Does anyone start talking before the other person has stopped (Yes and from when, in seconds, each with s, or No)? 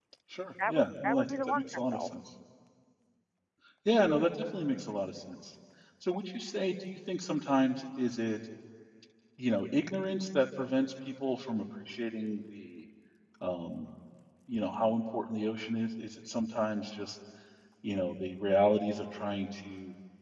Yes, from 0.7 s